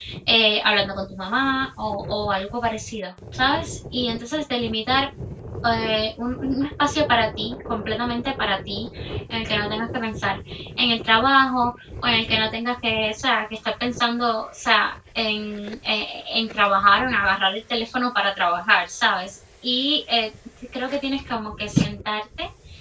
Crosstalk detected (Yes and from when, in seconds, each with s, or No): No